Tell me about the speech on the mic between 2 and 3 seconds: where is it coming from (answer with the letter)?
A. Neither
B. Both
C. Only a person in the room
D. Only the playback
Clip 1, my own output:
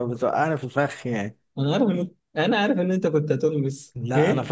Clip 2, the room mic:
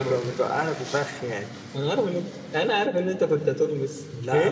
D